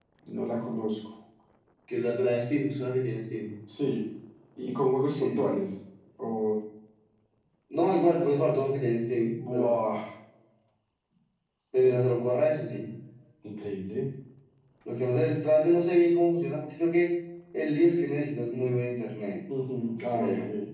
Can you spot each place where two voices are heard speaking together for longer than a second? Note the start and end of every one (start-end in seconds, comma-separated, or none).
none